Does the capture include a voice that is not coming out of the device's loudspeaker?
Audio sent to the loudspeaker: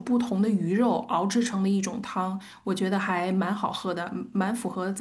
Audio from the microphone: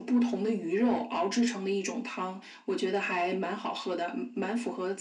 No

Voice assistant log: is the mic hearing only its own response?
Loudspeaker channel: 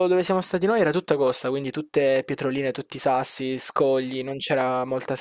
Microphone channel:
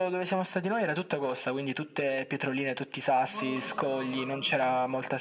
No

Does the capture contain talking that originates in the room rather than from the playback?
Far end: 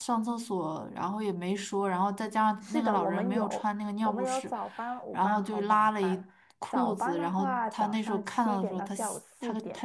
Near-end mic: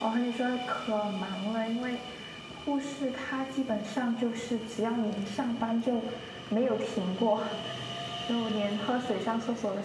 Yes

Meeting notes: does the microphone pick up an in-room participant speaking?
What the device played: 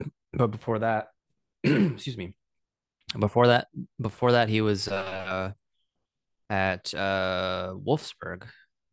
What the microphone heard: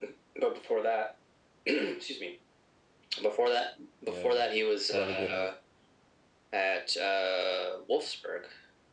Yes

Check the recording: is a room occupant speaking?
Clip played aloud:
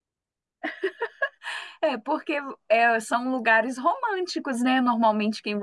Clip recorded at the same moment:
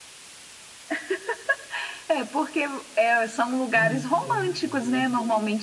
Yes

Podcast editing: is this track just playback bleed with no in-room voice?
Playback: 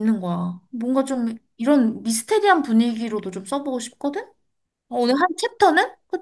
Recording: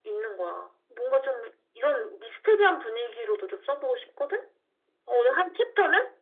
Yes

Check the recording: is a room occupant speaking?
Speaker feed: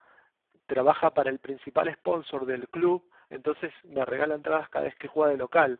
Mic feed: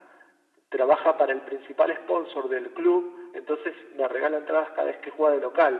No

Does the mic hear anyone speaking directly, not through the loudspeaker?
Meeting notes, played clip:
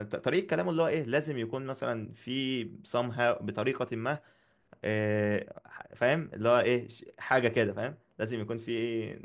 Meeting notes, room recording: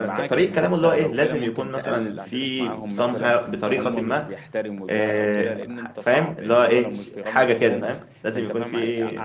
Yes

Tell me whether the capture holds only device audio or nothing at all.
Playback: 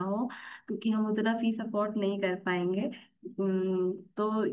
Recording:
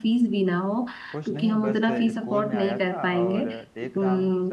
No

